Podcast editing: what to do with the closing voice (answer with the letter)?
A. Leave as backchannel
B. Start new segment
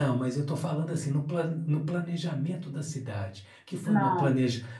A